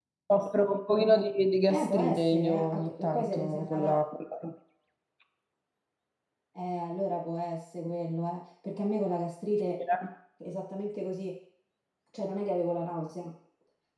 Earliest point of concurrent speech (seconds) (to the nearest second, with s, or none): 2 s